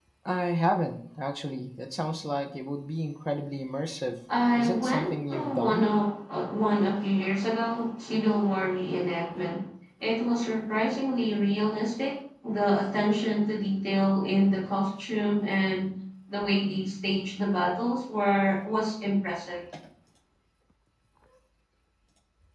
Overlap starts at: 4.5 s

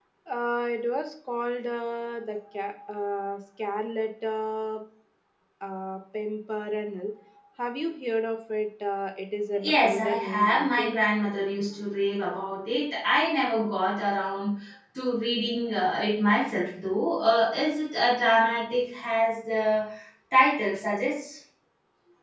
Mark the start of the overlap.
9.6 s

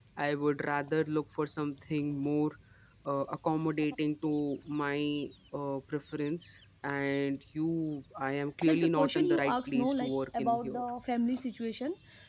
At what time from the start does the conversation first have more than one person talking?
8.7 s

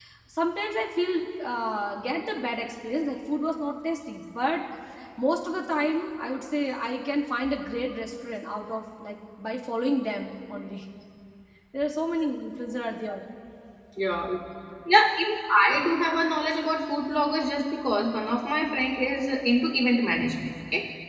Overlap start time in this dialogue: none

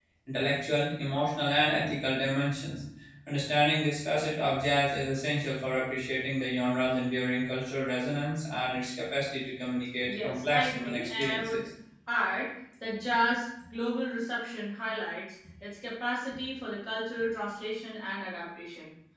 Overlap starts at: 10.1 s

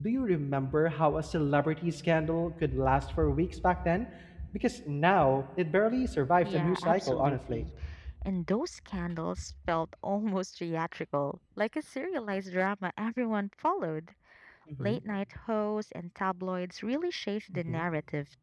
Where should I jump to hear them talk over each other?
6.4 s

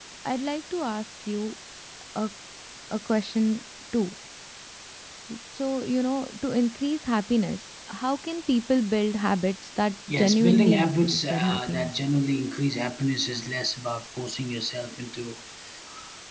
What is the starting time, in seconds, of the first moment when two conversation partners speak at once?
10.1 s

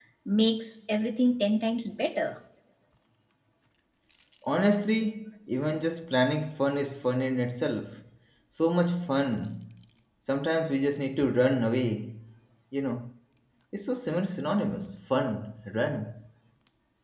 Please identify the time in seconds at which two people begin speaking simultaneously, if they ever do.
none

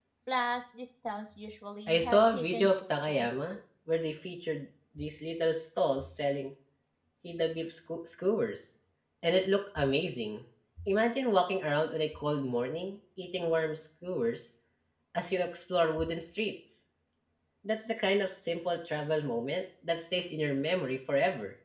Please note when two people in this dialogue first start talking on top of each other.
1.9 s

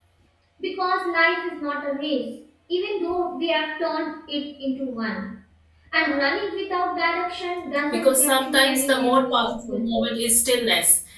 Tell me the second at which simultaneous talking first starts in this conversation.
7.9 s

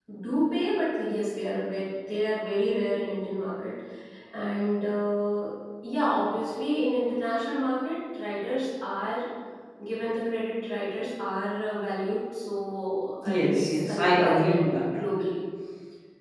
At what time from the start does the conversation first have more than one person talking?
13.2 s

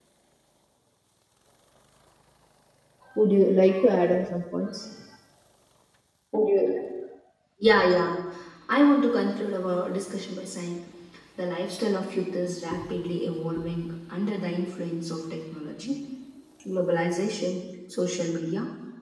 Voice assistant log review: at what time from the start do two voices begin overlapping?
none

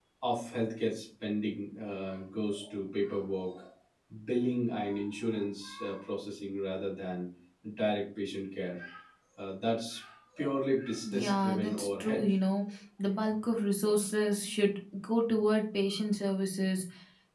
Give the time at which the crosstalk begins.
11.1 s

